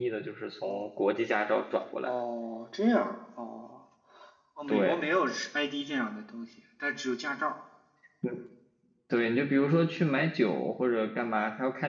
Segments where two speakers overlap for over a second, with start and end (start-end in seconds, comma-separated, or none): none